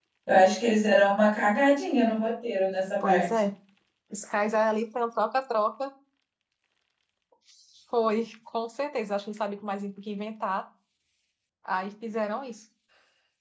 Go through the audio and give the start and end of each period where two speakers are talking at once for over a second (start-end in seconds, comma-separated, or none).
none